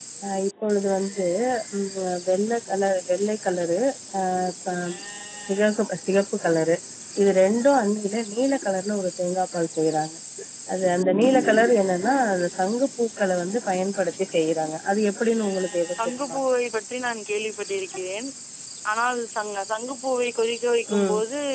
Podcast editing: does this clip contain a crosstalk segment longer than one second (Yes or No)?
No